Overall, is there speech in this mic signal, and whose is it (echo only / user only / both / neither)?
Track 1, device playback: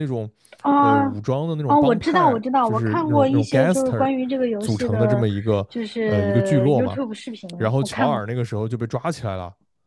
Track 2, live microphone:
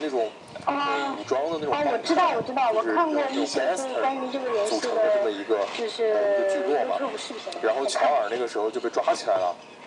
echo only